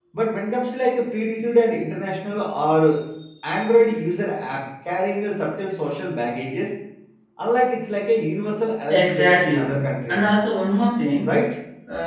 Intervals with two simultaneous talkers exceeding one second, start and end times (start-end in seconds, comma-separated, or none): 8.9-10.2